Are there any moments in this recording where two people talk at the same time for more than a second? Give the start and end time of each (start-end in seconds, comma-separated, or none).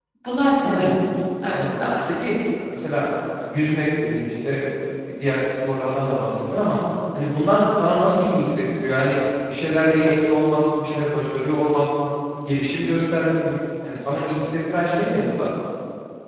none